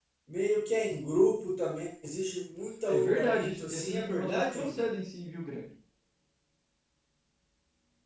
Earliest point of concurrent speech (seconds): 2.9 s

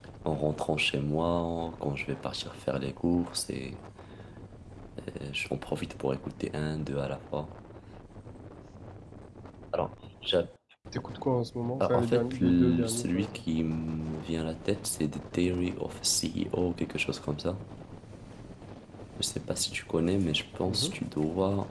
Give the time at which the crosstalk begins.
11.8 s

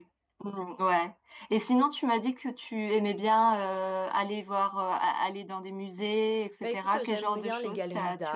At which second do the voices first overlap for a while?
6.6 s

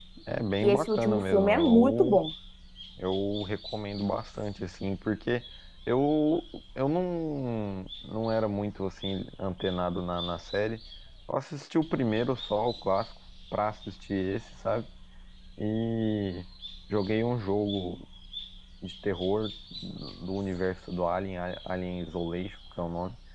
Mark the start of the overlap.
0.6 s

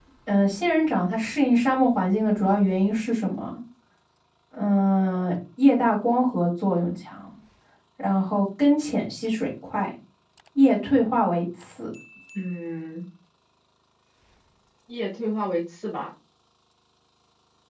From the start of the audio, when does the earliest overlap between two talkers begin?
none

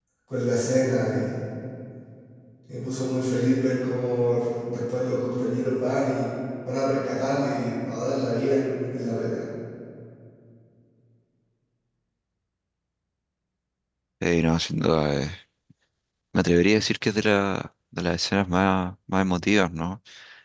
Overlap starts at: none

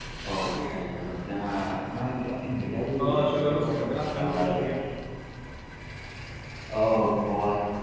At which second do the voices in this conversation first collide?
3.0 s

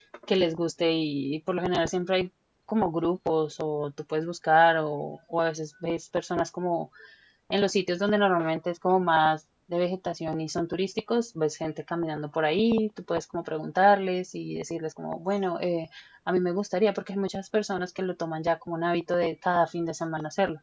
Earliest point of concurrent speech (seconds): none

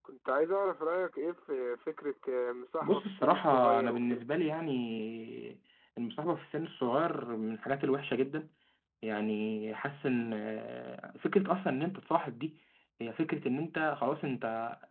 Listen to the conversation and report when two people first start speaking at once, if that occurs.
2.8 s

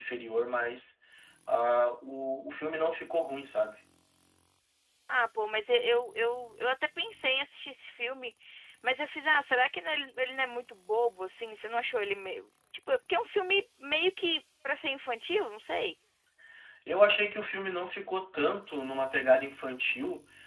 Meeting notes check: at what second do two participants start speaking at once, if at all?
none

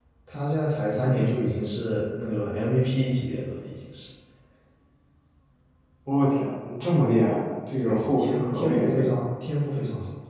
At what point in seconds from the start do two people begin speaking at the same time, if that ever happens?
7.8 s

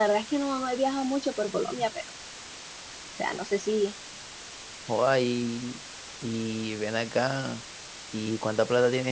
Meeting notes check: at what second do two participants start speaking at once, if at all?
none

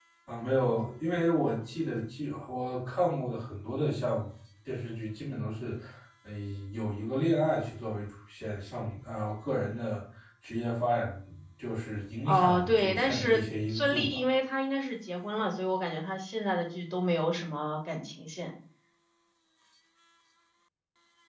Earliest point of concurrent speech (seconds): 12.2 s

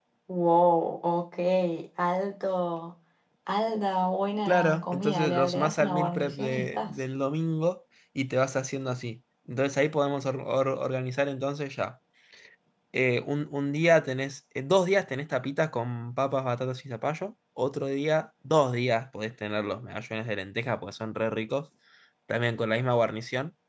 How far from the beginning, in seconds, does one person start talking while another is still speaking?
4.5 s

